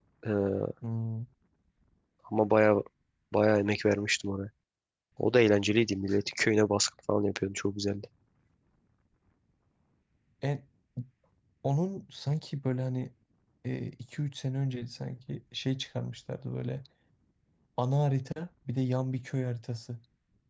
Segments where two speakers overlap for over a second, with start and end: none

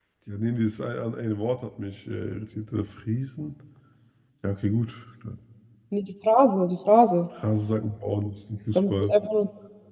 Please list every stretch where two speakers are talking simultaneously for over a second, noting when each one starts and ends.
none

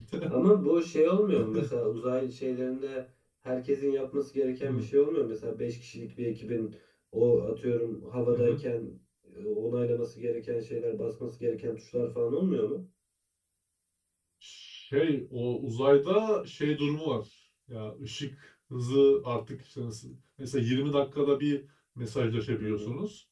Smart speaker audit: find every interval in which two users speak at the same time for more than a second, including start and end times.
none

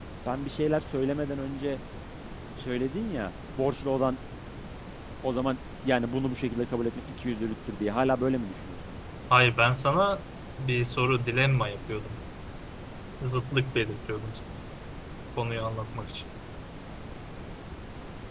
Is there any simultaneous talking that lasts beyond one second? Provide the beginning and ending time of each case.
none

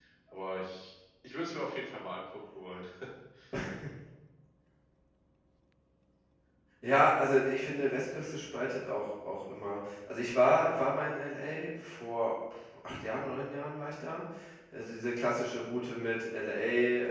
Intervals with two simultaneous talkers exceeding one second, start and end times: none

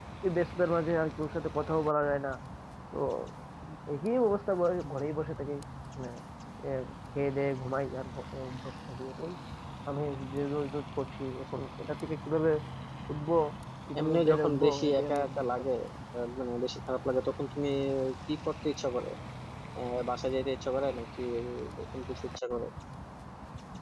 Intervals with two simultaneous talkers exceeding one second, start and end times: 14.0-15.6

